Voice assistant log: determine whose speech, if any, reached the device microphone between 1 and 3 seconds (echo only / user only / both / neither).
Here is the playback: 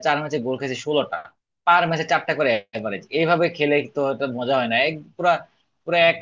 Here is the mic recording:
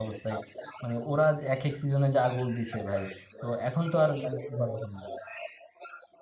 both